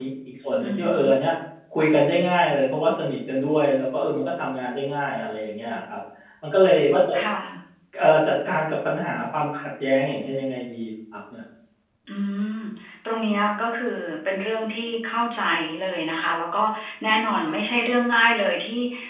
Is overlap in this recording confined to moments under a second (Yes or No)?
Yes